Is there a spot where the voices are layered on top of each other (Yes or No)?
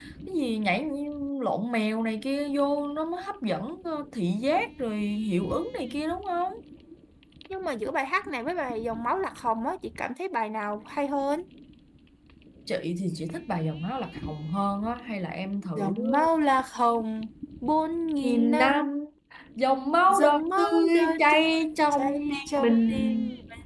Yes